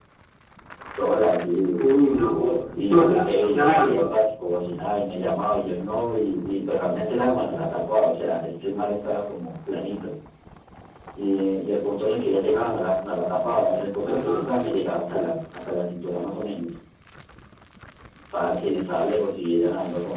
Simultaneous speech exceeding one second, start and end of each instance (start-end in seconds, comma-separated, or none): 2.8-4.1